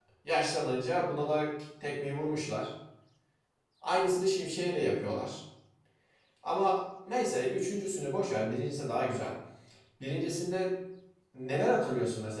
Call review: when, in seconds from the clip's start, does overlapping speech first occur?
none

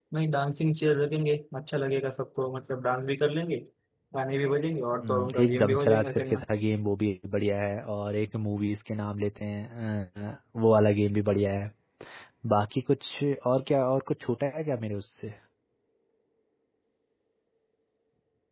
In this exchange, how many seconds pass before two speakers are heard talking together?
5.0 s

